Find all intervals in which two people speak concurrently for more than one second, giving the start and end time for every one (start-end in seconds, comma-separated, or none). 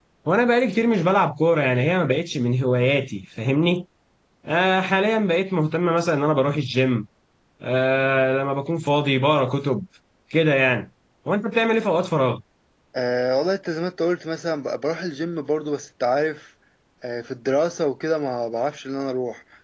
none